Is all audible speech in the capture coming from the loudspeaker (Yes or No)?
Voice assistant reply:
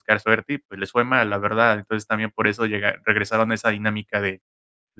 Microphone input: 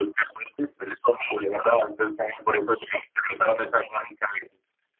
Yes